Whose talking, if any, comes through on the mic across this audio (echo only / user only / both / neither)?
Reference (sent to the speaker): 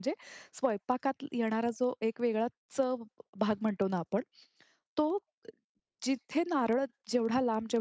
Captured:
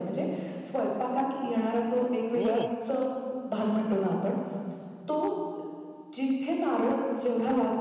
both